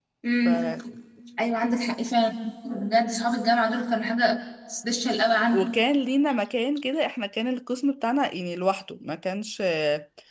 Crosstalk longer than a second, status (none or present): none